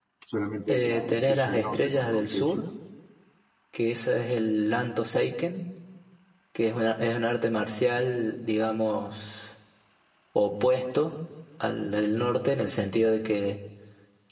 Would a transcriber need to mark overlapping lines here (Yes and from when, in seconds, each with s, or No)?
Yes, from 0.7 s